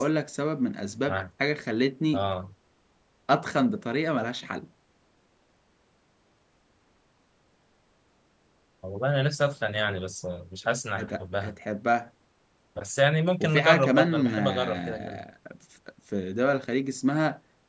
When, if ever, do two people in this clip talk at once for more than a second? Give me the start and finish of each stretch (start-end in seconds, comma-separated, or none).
13.4-15.2